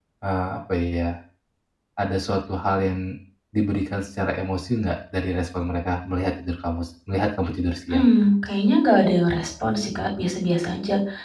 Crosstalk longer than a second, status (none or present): none